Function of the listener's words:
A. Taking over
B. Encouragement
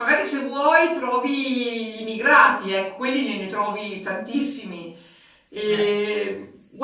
B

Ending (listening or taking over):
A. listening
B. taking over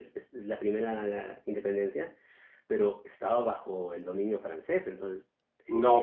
B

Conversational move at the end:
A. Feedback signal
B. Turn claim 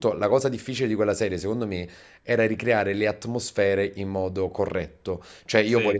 A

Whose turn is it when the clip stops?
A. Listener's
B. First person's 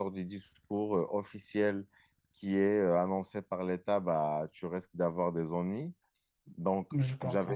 B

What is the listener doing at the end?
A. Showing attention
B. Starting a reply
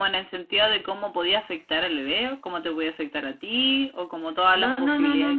B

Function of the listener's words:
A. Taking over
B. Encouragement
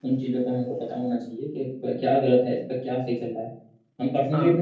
B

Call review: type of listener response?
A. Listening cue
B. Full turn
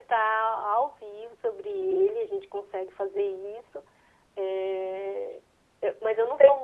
A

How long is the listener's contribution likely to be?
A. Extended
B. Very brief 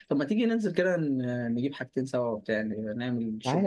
A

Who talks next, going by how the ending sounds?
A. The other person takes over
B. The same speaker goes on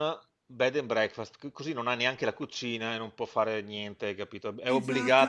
A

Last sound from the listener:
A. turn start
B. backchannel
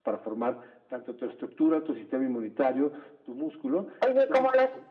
A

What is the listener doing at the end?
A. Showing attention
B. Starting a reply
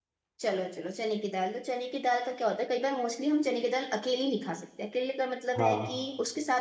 A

